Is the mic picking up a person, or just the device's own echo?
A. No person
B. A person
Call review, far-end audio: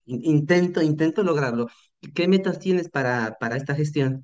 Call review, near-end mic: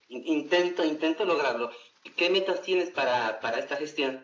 A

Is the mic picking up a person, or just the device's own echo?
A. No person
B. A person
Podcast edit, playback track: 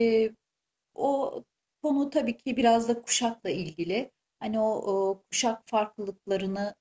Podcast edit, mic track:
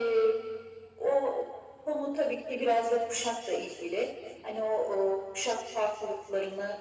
A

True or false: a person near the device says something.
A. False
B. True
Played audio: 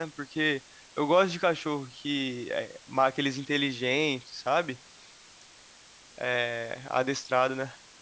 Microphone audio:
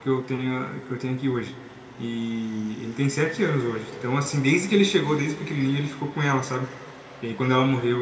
B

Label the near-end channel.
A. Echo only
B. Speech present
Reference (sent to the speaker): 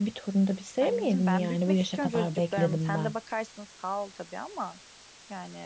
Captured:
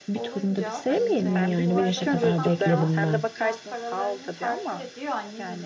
B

